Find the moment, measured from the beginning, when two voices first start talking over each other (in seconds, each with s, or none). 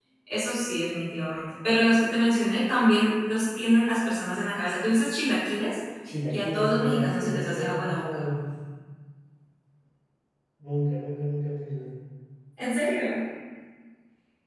6.3 s